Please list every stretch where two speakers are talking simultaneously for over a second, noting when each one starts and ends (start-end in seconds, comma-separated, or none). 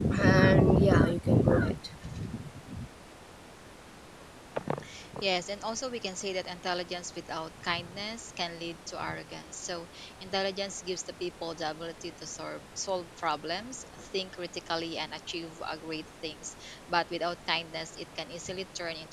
none